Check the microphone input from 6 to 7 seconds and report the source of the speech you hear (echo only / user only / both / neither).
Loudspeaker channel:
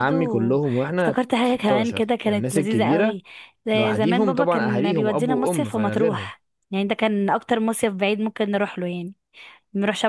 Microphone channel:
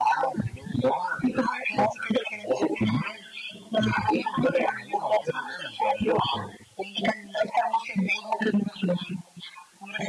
echo only